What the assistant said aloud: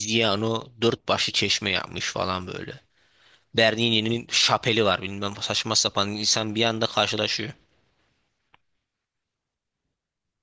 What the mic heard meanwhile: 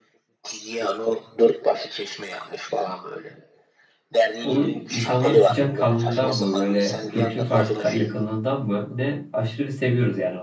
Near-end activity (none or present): present